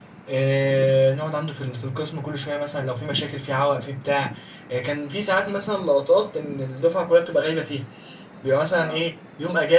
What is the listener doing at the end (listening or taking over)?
listening